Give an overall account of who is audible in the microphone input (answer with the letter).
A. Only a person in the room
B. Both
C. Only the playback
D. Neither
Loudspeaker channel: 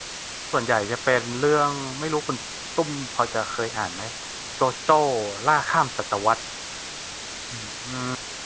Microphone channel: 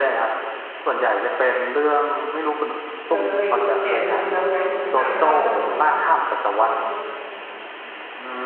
B